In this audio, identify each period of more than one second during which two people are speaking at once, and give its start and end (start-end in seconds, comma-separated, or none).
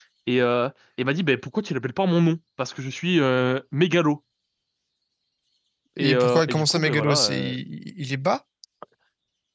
6.0-7.5